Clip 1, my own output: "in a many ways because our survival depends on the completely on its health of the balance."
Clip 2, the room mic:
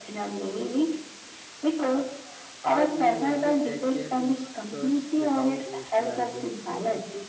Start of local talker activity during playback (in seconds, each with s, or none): 2.6 s